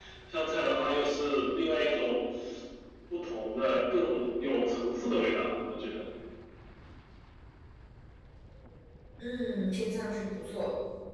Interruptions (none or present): none